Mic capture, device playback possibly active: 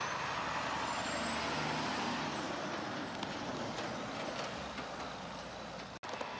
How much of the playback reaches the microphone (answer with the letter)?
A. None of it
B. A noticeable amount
A